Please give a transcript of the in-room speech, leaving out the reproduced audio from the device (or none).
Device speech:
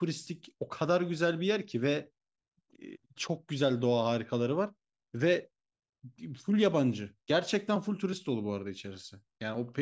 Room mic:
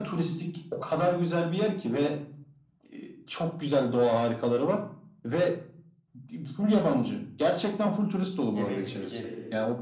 Yemeğimizi yeriz.